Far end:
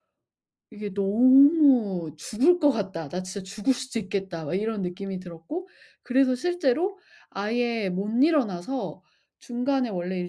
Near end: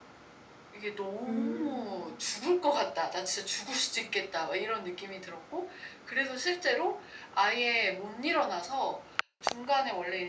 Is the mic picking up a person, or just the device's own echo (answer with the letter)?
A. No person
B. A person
B